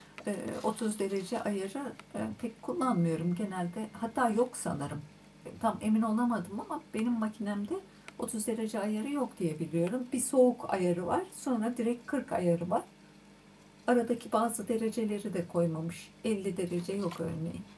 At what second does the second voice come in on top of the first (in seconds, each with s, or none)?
none